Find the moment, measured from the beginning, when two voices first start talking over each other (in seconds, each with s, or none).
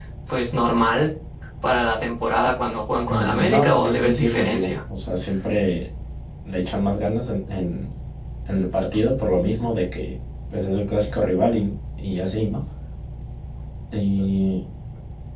3.1 s